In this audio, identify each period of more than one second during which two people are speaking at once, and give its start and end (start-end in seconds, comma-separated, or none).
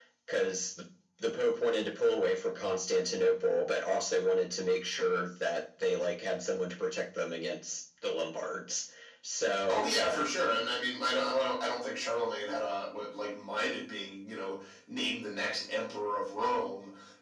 none